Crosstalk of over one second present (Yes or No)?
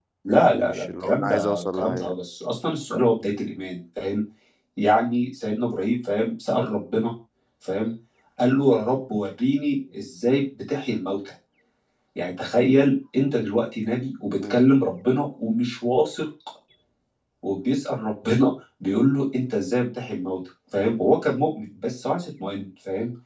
Yes